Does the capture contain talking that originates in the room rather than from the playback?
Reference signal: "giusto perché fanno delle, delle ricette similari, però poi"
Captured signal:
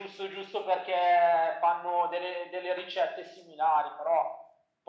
No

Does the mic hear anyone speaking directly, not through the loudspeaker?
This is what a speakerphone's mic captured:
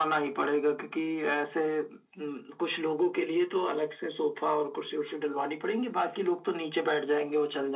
No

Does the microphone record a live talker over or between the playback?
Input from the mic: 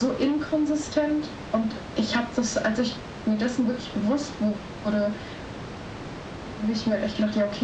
No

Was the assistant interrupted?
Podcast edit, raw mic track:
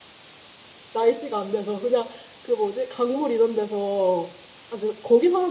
Yes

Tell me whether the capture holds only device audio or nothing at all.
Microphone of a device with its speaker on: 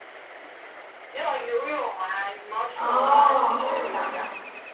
No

